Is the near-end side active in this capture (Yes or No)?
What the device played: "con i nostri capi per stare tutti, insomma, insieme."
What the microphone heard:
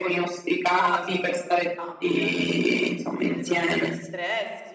Yes